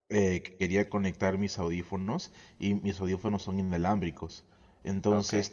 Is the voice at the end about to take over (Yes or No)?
No